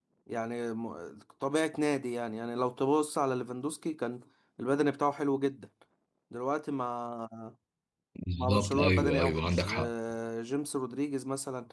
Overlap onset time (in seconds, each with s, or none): 8.4 s